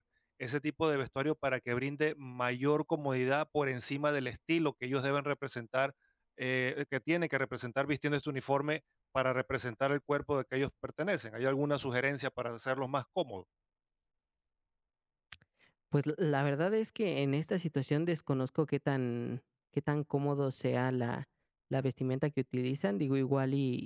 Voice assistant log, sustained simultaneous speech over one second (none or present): none